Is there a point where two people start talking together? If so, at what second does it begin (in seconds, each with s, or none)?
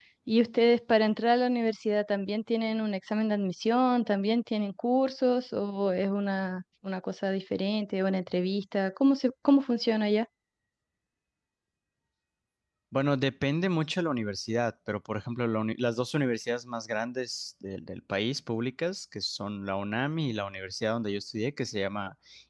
none